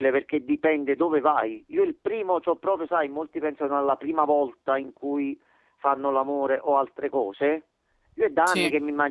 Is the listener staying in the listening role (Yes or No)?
Yes